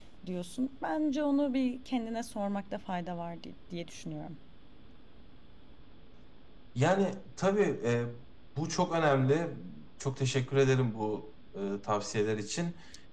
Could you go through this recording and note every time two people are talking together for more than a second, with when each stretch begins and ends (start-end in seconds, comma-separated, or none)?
none